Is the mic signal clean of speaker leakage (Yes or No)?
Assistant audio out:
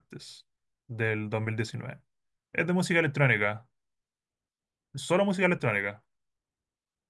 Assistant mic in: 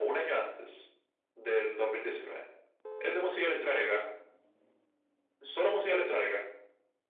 No